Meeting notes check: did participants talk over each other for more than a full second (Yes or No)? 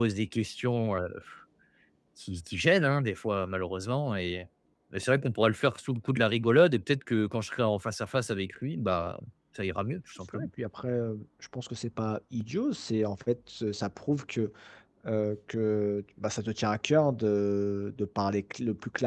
No